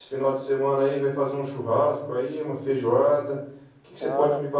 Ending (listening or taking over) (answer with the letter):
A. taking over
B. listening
B